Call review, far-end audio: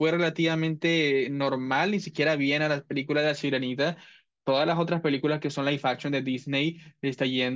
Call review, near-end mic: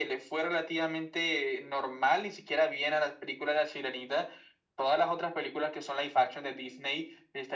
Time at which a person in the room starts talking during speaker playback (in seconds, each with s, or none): none